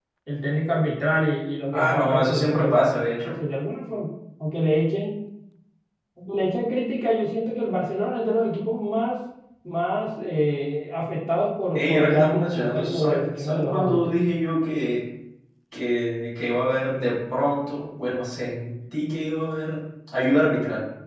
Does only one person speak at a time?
No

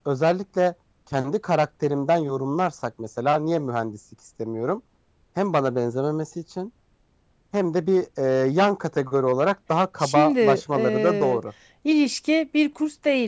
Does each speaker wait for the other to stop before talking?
No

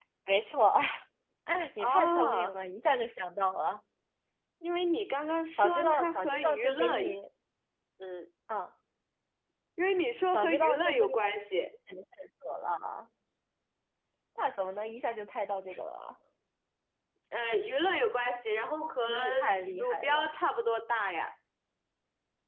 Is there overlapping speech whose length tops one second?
Yes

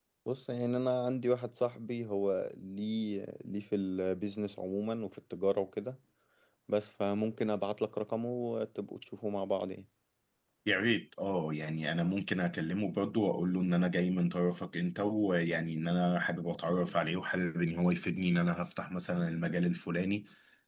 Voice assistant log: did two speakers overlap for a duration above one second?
No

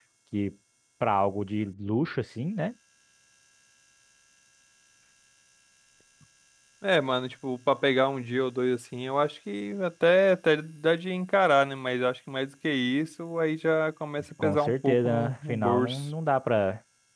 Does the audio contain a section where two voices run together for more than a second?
Yes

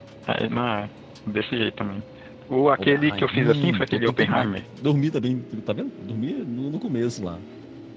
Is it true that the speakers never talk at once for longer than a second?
No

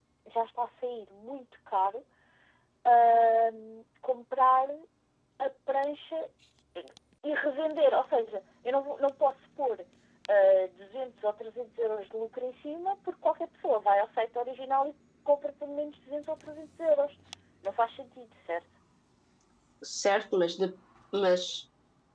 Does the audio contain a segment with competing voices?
No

